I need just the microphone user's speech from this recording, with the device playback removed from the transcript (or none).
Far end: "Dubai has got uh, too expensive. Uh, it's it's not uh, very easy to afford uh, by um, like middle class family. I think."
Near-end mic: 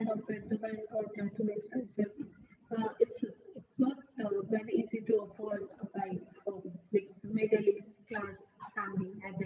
none